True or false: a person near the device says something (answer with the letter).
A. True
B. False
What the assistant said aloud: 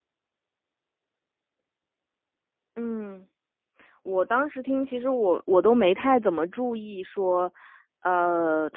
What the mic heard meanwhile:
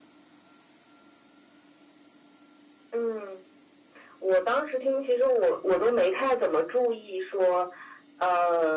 B